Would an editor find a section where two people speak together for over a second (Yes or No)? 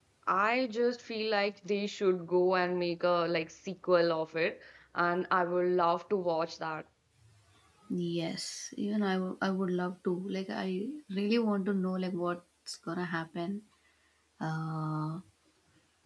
No